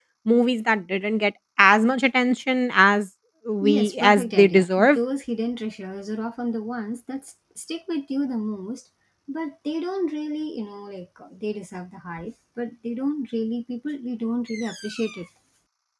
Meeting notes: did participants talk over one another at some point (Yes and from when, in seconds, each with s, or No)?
Yes, from 3.6 s